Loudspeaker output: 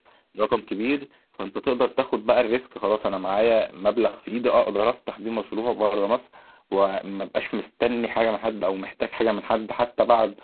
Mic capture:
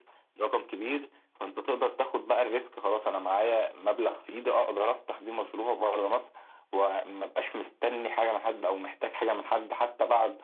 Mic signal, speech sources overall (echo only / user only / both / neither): echo only